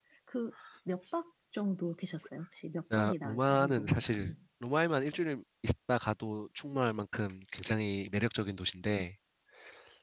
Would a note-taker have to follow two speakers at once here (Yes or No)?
Yes